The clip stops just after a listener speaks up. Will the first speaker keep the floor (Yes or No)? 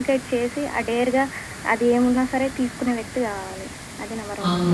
No